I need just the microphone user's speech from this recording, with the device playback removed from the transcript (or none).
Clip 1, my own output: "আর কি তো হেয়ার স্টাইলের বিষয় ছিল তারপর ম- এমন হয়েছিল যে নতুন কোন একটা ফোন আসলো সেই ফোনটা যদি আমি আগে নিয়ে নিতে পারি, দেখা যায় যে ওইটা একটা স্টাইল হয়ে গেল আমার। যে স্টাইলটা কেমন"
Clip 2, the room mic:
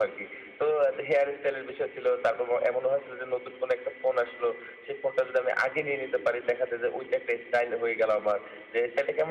none